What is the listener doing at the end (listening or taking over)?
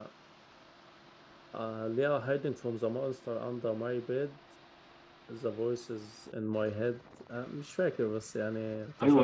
taking over